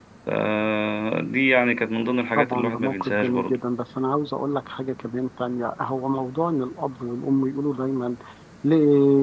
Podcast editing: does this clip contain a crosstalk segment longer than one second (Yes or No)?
Yes